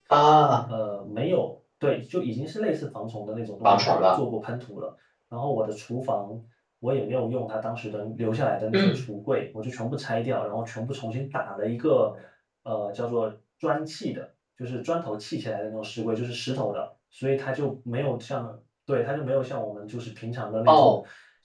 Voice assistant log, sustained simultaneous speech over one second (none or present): none